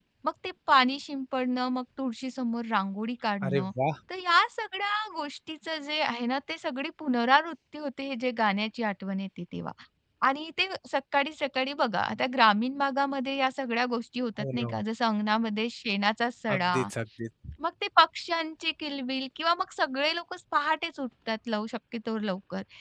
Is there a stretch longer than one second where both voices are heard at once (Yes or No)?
No